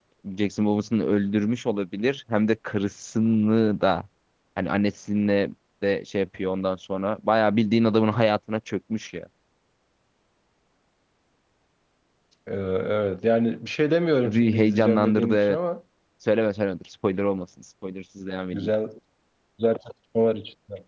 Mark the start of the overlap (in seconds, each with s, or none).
14.2 s